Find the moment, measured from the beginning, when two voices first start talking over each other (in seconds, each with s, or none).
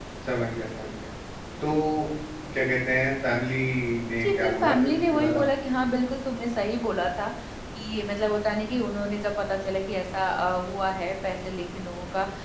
4.2 s